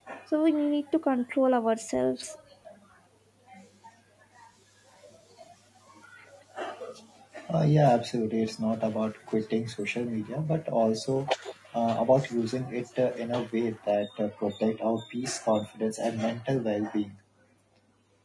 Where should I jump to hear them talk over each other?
none

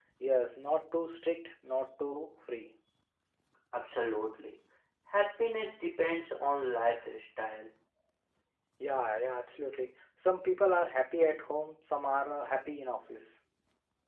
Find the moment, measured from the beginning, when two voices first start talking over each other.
none

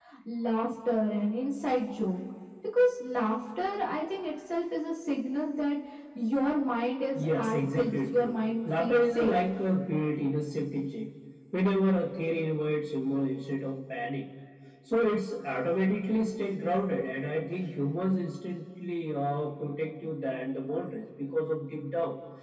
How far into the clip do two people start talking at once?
7.2 s

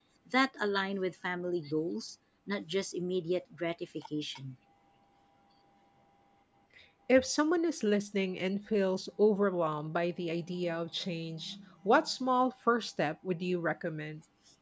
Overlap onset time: none

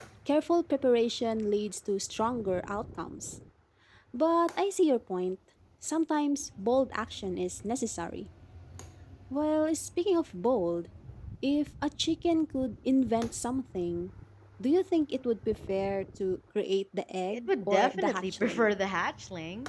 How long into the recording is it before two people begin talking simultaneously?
17.3 s

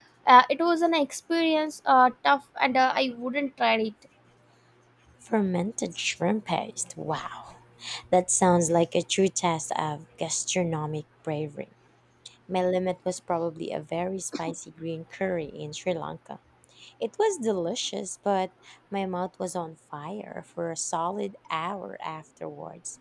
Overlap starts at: none

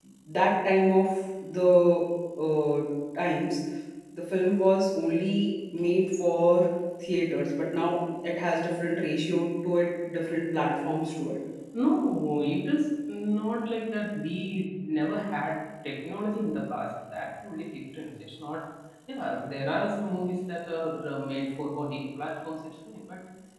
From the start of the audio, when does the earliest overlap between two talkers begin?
none

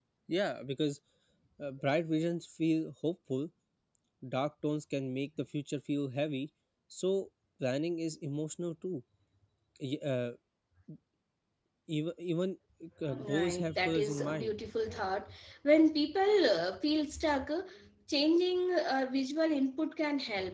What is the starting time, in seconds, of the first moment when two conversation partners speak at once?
13.3 s

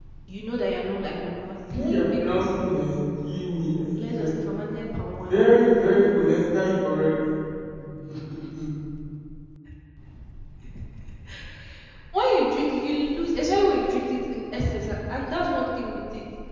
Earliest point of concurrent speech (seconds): 1.5 s

